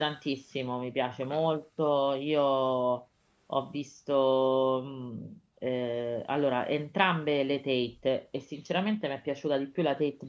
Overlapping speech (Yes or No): No